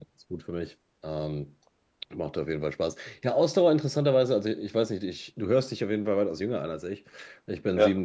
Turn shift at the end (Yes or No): No